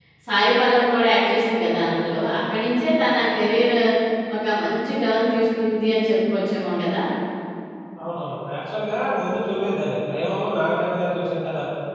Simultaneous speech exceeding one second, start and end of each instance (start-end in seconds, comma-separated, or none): none